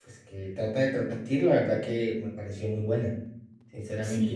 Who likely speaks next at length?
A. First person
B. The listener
B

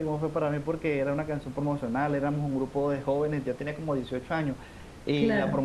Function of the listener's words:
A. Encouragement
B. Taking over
A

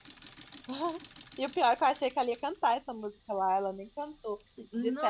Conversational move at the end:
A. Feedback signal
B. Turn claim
A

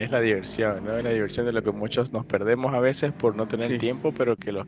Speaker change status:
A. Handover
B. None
B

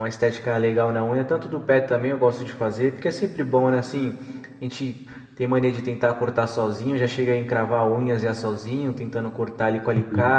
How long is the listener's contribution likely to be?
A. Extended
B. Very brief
B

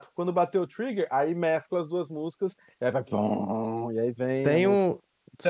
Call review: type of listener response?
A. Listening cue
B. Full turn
B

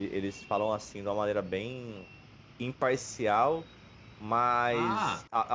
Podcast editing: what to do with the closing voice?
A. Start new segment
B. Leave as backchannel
B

